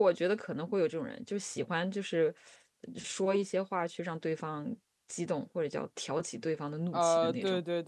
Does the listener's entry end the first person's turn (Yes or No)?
Yes